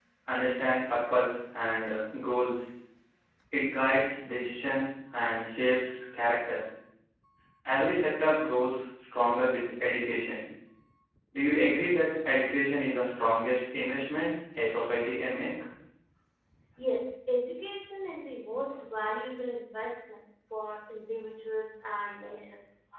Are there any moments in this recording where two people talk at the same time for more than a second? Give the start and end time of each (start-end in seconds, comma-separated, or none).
none